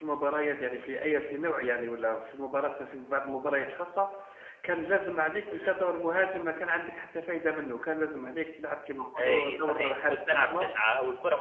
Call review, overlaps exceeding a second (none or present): present